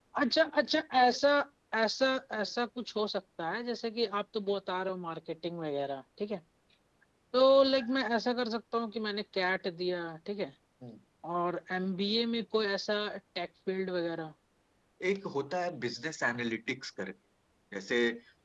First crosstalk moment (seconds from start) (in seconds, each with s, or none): none